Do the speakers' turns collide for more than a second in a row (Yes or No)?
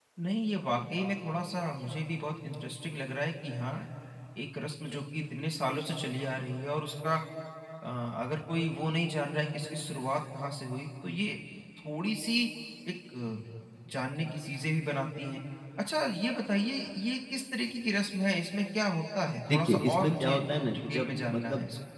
Yes